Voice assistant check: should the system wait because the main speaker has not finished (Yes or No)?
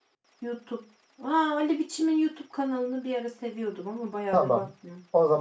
No